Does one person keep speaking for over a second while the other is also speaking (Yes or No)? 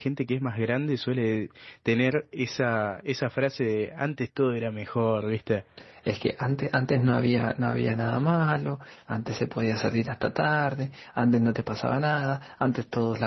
No